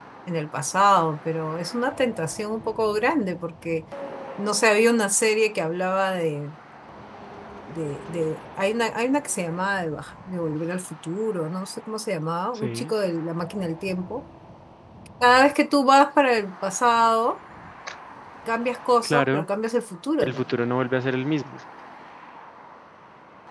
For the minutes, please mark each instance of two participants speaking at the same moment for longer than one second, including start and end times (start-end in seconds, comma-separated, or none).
none